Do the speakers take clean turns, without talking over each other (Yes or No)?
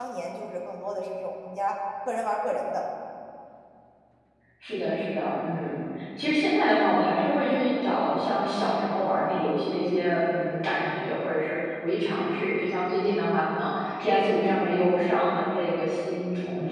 Yes